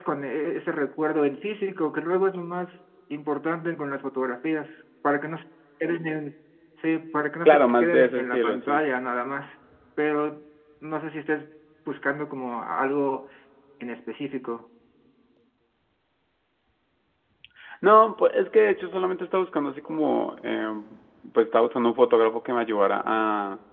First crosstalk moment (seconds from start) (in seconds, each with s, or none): 7.5 s